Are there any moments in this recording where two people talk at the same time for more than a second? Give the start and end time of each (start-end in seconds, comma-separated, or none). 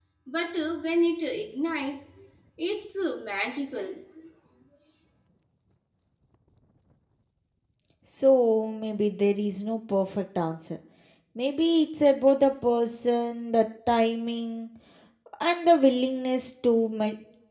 none